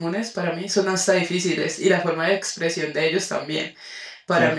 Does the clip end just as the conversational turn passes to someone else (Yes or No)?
No